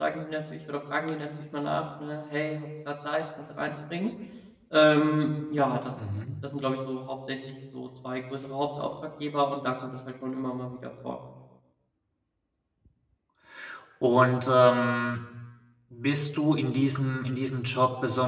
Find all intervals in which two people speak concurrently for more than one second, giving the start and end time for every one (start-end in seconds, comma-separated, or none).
none